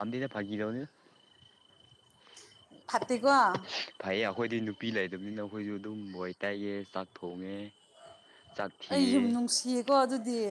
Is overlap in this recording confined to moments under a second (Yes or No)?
Yes